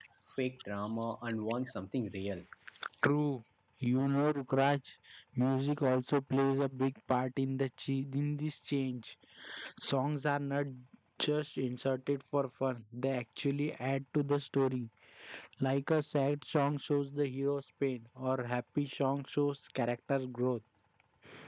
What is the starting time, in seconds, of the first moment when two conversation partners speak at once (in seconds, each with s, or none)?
none